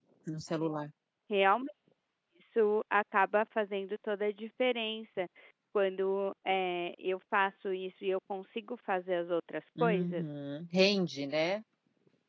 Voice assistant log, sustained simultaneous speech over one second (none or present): none